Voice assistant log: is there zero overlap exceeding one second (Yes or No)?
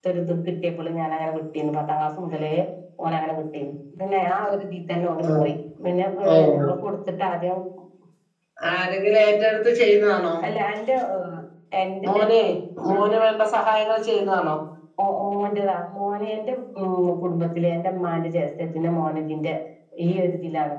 Yes